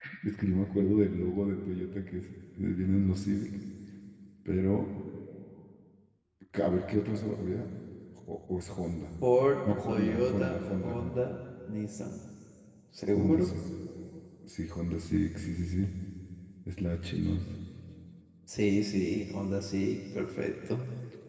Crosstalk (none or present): present